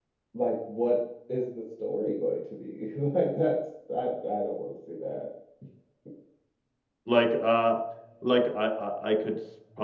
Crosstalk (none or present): none